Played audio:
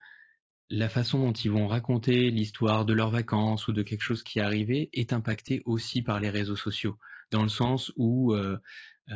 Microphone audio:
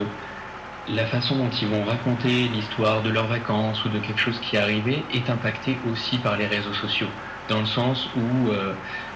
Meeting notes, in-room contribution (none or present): none